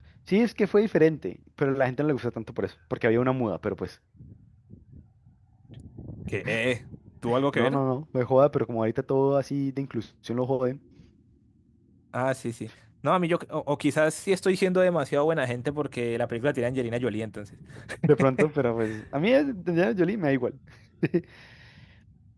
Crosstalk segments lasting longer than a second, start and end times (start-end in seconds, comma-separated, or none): none